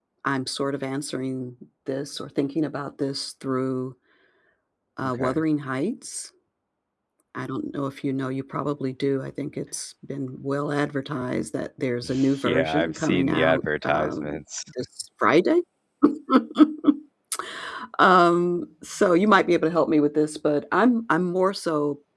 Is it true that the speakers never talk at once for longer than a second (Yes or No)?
No